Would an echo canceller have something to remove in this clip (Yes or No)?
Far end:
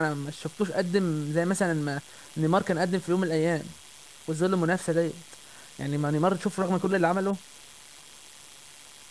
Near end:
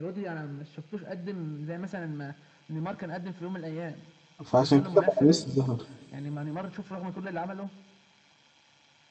Yes